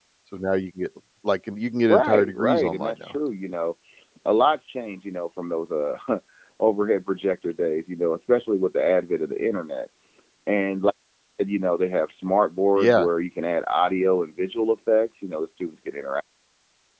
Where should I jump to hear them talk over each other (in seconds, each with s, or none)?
1.9 s